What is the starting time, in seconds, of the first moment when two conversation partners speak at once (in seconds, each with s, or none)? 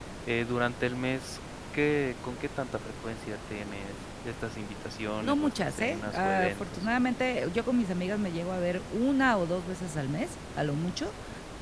5.2 s